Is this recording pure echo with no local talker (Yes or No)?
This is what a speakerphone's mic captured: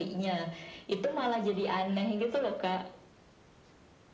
Yes